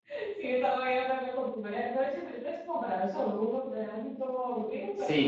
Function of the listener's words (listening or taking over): taking over